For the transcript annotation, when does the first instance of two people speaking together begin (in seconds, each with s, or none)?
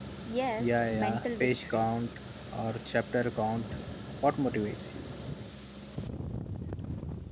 0.6 s